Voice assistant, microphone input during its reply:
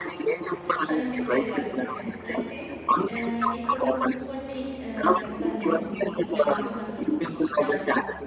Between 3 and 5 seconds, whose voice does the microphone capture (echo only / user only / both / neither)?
both